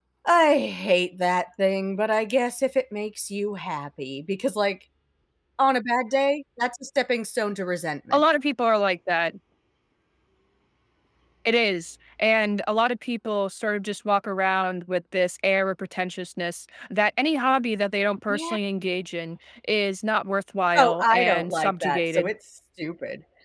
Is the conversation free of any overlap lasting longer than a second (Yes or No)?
No